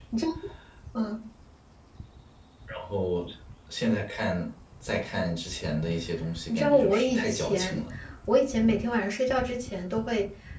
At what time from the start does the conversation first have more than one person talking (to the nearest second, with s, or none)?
6 s